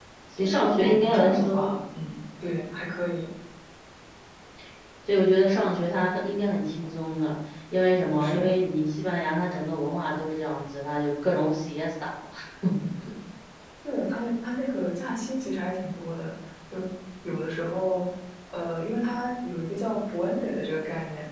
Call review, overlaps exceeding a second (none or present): present